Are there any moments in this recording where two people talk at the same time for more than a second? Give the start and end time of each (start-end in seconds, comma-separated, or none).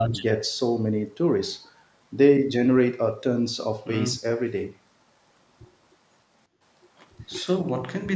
none